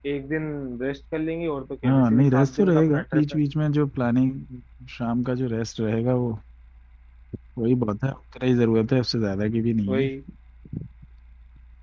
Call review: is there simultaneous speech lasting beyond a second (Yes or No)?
Yes